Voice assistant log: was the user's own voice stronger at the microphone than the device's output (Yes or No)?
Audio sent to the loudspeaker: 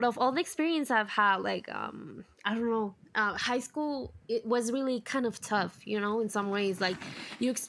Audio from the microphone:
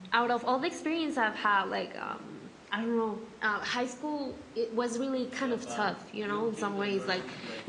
No